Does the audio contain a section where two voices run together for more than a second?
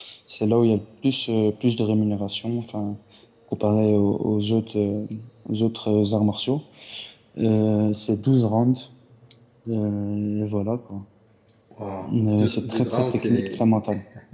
Yes, from 12.1 s

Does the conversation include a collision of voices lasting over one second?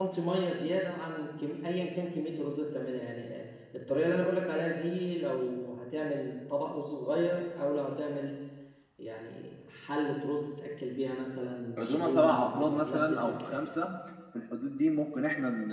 Yes, from 11.8 s

